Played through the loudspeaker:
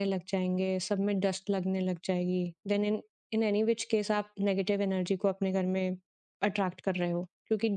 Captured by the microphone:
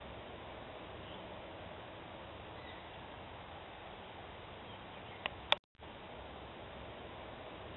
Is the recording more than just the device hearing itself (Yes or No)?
No